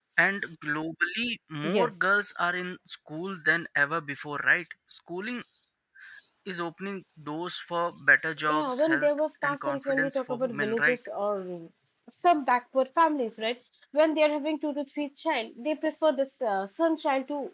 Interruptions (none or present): present